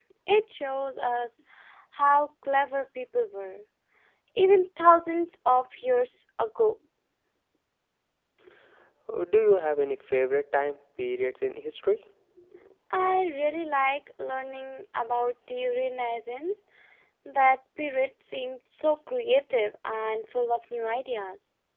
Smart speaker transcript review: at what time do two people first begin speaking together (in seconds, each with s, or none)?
none